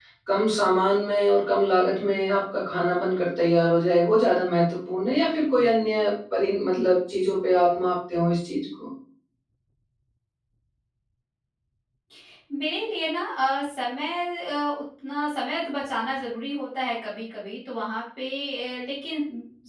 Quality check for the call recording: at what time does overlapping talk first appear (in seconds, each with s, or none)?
none